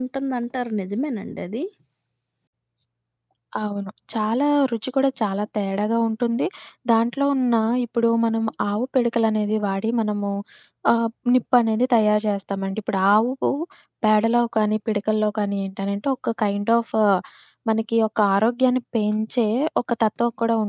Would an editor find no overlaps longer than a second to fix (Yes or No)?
Yes